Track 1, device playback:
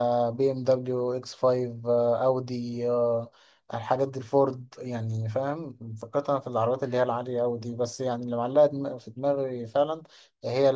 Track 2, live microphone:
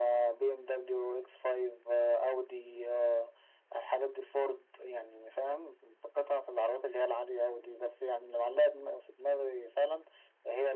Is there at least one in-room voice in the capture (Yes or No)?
No